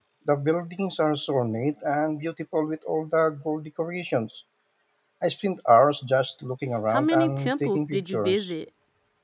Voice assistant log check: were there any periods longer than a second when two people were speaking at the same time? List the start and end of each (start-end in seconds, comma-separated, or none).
6.9-8.5